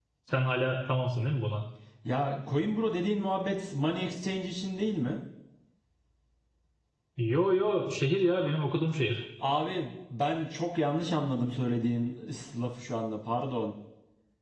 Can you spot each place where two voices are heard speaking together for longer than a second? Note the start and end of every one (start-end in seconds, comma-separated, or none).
none